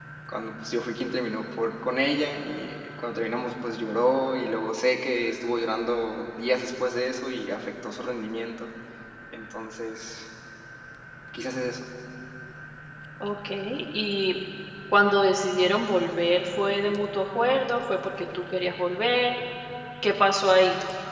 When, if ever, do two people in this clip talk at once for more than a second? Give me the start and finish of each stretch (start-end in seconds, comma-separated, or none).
none